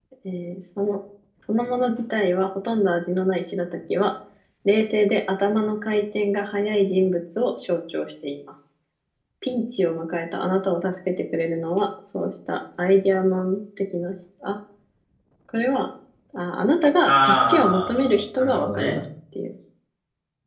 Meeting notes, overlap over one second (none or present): present